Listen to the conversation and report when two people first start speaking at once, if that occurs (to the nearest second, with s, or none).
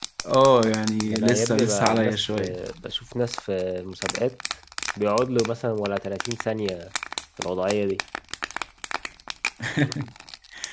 1 s